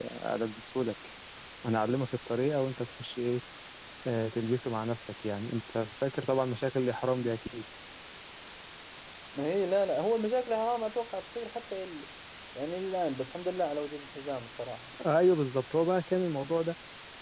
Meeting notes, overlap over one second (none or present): none